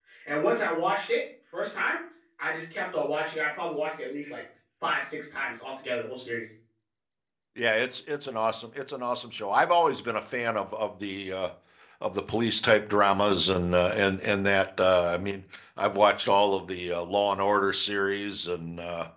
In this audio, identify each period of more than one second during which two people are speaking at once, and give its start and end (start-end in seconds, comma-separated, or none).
none